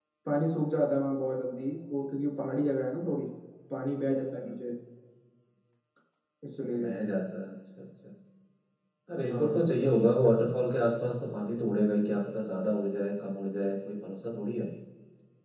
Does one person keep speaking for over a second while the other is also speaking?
No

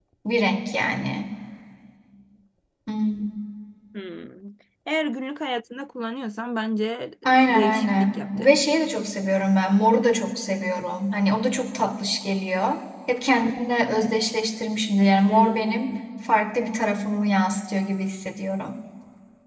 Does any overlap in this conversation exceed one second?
Yes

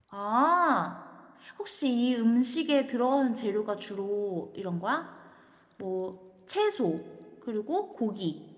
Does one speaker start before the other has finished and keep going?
No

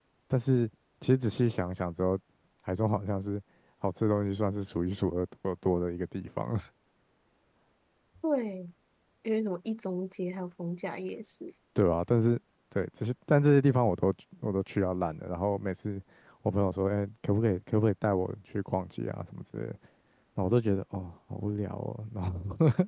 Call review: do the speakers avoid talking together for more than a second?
Yes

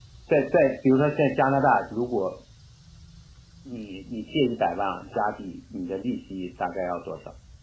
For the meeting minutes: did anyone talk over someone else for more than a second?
No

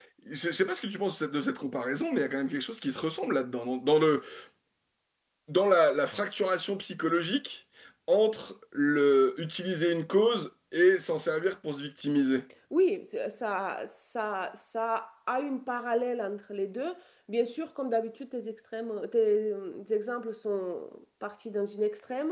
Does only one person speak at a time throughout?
Yes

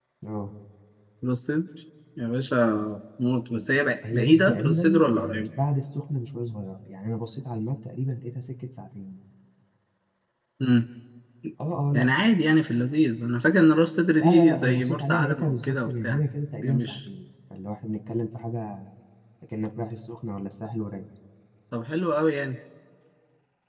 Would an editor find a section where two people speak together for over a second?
Yes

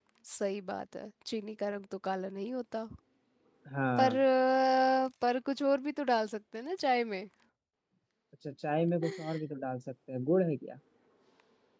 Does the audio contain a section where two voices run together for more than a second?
No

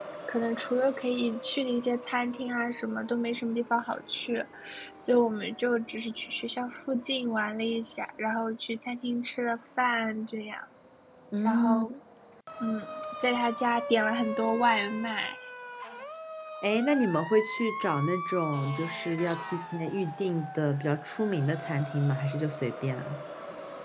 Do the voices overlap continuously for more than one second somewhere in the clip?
No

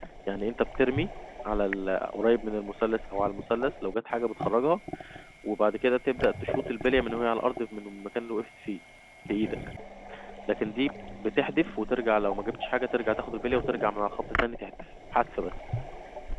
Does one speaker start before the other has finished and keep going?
No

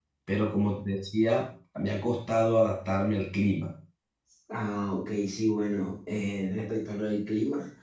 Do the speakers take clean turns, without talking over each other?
Yes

